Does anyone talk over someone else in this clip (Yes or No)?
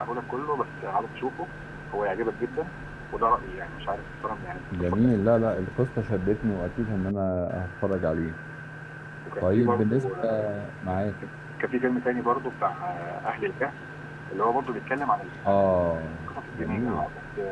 Yes